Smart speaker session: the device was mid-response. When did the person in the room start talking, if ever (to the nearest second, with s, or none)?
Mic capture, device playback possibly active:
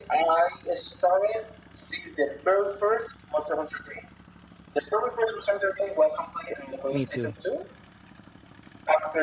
7 s